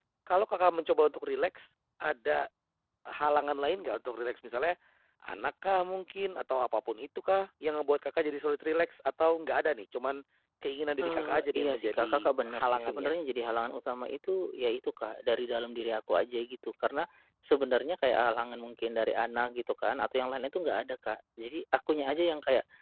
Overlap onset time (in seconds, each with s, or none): 11.0 s